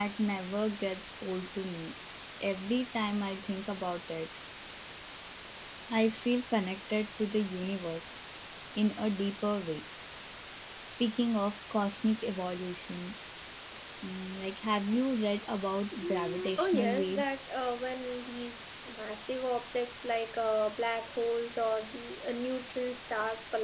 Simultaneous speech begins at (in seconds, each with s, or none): 16.0 s